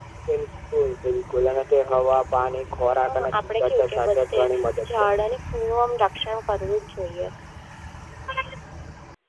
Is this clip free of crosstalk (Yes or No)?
No